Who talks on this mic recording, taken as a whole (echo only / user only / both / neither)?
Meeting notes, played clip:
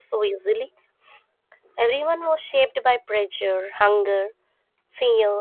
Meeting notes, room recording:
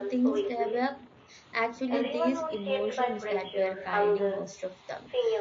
both